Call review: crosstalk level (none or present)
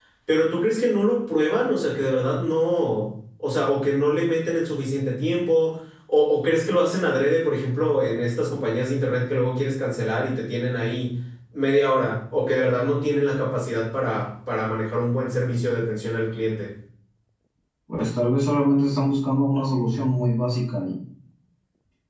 none